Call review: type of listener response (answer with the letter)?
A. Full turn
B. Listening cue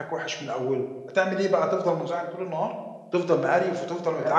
B